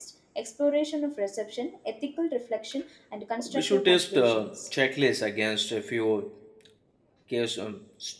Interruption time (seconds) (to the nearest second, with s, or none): 3 s